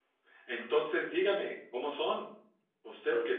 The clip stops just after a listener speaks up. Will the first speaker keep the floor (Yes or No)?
Yes